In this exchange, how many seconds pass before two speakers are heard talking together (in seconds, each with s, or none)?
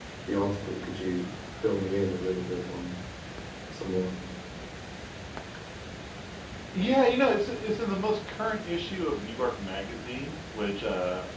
none